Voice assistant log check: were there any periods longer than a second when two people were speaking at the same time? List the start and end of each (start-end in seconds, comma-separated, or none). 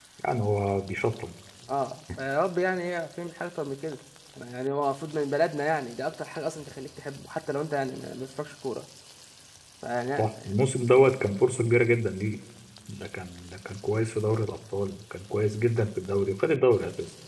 none